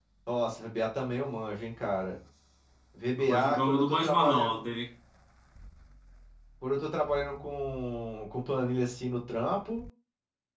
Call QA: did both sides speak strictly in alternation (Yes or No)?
No